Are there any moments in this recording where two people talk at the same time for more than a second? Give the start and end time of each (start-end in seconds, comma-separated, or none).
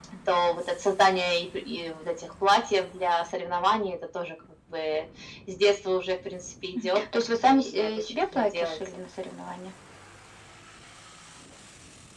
7.4-8.8